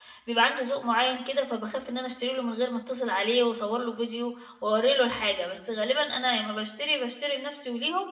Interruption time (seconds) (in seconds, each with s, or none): none